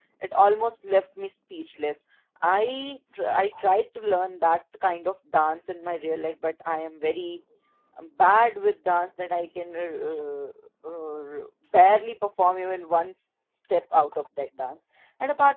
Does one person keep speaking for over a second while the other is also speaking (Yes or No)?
No